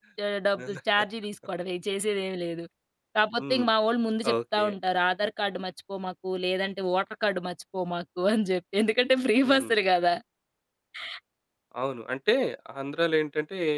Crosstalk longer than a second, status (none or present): none